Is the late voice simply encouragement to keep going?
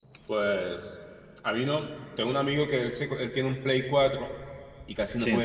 Yes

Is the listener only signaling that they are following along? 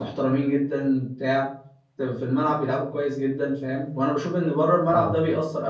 Yes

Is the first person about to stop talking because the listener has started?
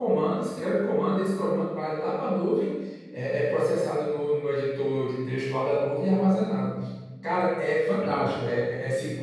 No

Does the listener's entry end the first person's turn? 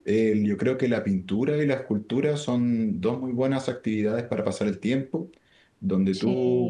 No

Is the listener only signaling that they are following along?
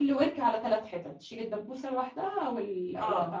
No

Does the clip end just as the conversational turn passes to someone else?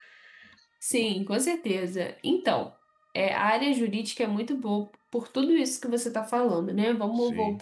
No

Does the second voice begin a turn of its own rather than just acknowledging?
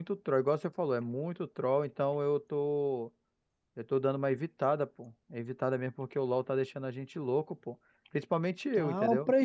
Yes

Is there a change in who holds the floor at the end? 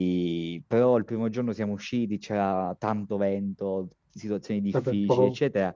No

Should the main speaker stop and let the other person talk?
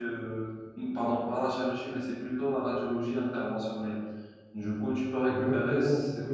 Yes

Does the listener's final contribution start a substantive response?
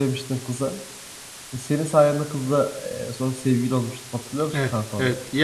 Yes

